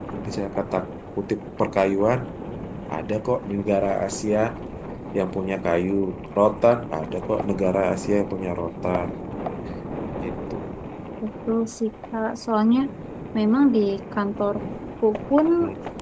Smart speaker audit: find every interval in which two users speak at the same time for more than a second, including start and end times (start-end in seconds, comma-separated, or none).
none